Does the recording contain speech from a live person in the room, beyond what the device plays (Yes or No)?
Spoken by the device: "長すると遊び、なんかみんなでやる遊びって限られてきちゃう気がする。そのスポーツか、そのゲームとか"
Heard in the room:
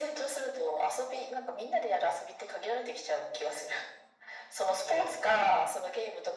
Yes